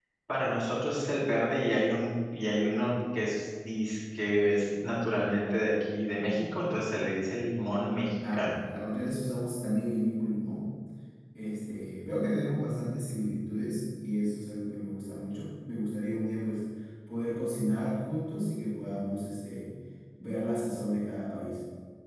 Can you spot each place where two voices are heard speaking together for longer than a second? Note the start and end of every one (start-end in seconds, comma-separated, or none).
none